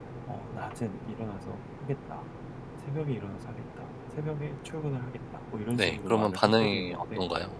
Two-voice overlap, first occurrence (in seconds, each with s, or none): 5.7 s